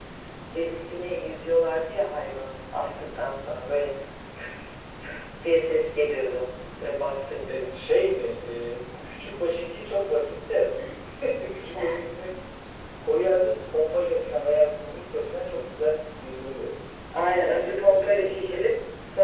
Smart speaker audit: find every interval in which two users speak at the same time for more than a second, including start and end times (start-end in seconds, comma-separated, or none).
17.4-18.6